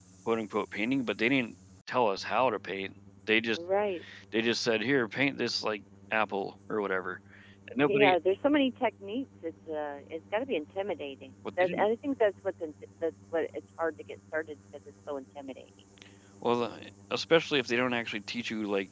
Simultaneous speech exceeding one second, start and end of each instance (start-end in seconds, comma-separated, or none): none